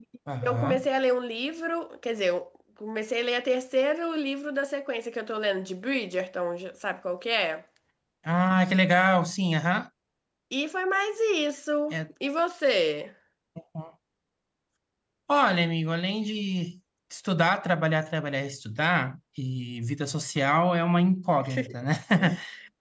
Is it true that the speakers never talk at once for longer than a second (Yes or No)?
Yes